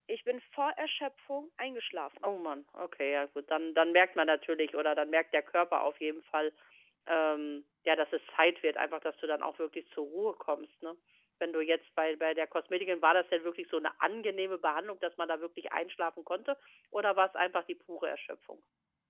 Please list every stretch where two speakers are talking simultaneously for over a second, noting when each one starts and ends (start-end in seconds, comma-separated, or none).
none